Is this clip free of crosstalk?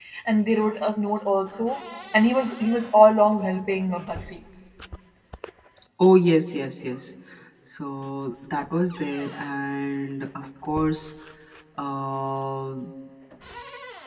Yes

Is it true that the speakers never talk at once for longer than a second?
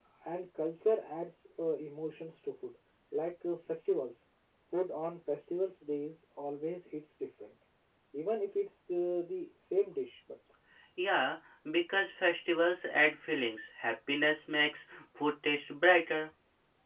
Yes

